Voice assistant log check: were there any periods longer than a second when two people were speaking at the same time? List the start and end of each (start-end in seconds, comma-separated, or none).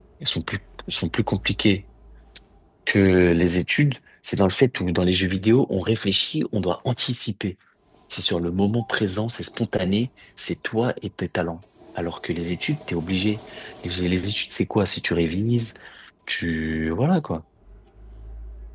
none